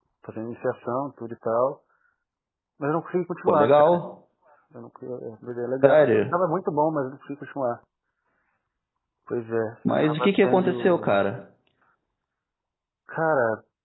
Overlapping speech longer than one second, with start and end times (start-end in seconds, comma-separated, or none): 10.0-11.2